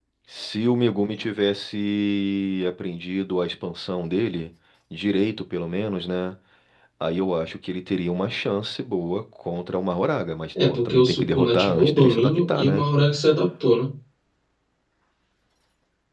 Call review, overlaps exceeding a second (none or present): present